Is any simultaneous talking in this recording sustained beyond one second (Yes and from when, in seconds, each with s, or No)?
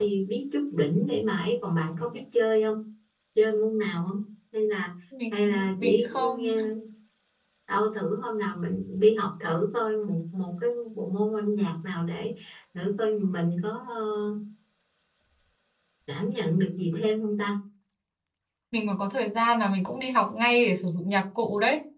Yes, from 5.3 s